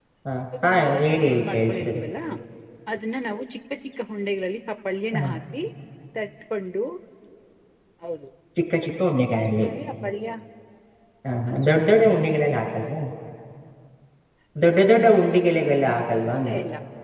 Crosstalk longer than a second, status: present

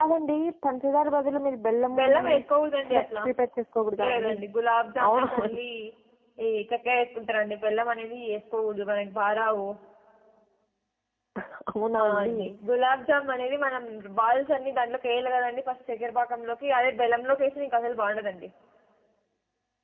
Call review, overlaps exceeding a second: none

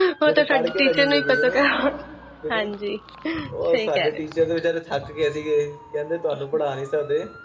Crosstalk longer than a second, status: present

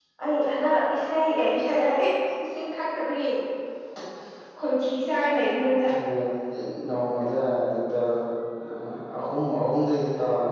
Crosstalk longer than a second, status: none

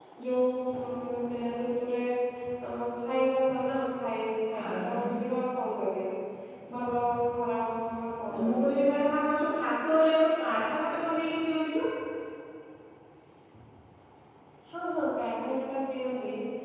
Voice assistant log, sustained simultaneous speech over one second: none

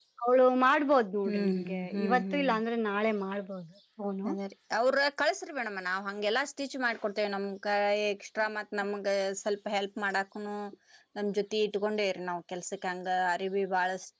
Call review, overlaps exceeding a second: present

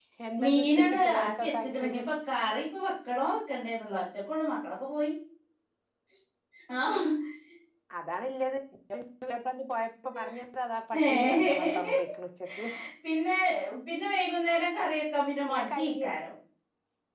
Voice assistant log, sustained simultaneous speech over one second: present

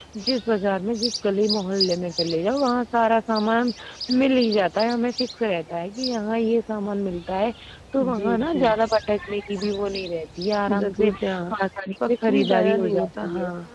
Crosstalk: present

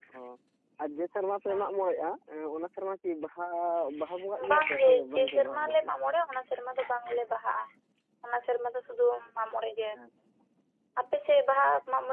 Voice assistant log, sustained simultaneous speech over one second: present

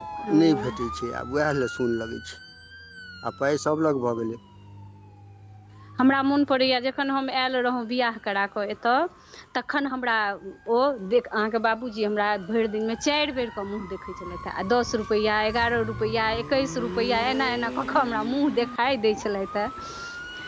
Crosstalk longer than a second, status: none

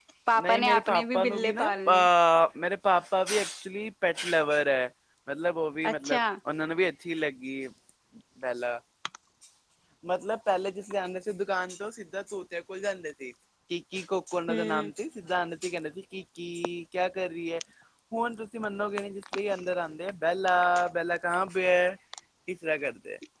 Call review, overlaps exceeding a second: present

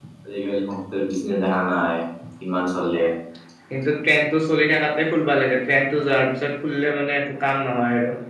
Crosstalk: none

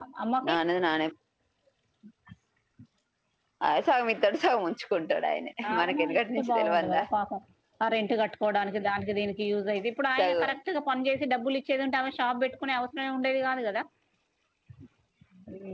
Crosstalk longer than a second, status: present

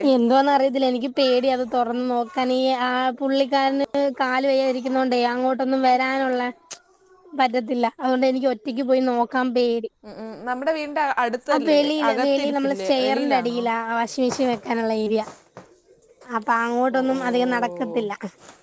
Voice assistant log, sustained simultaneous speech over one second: present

